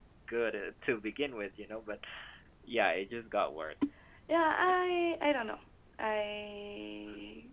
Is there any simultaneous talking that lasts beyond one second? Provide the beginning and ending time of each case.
none

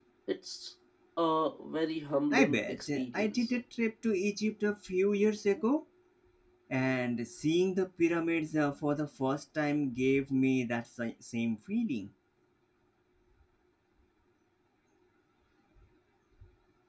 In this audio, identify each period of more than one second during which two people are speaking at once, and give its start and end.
2.3-3.5

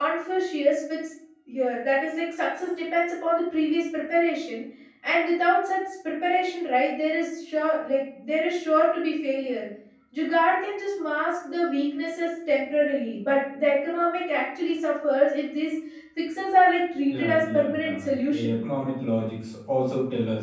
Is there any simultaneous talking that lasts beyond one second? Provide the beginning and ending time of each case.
17.1-18.6

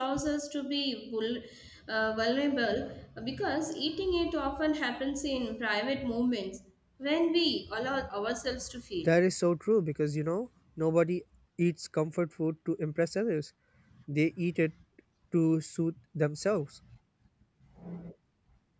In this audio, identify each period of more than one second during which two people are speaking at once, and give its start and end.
none

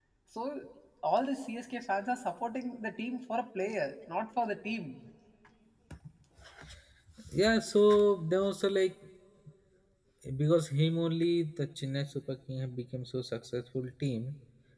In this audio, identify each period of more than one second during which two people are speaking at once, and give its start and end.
none

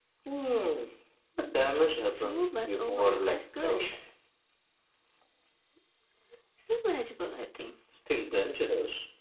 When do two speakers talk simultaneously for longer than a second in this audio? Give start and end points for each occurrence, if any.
2.1-4.0

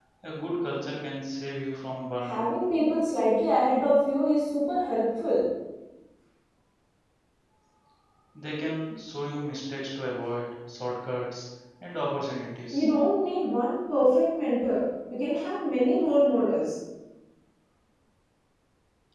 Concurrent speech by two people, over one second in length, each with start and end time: none

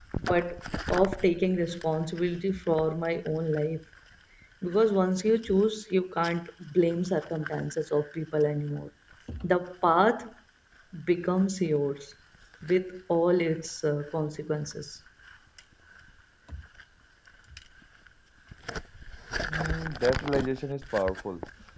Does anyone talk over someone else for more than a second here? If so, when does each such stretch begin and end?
none

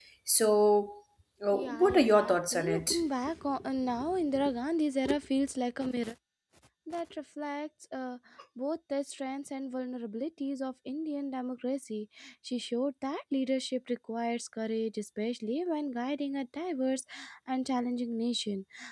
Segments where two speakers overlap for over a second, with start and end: 1.5-3.0

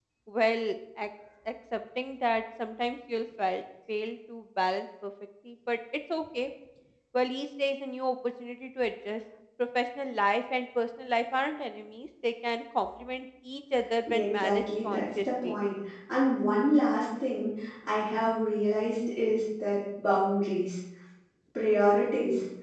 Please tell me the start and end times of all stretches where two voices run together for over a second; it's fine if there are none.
14.1-15.6

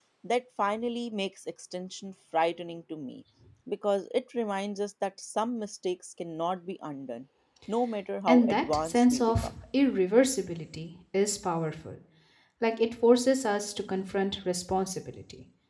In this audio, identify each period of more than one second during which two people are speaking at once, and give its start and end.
8.3-9.6

